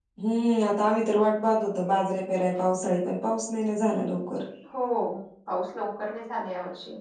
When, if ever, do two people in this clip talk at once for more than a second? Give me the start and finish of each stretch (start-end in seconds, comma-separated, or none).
none